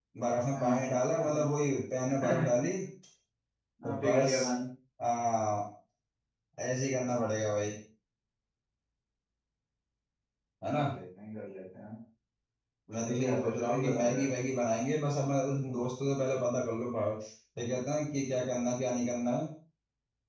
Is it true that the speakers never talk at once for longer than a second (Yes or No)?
No